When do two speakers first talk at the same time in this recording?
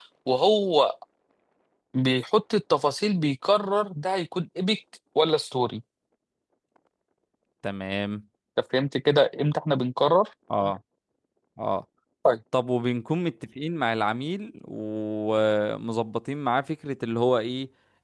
none

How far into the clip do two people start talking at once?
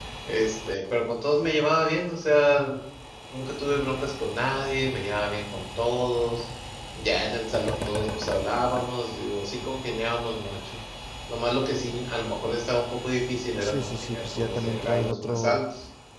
13.6 s

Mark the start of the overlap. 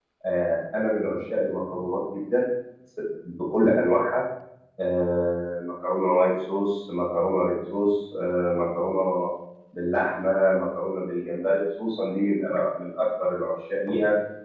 none

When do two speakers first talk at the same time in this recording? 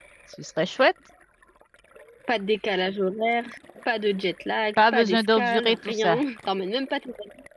4.8 s

